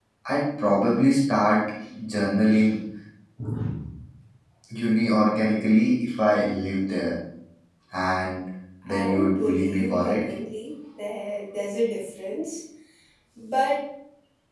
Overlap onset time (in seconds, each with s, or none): 8.9 s